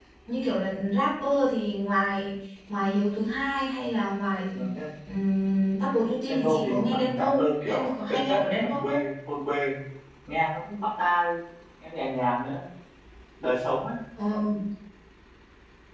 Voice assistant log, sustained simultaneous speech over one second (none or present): present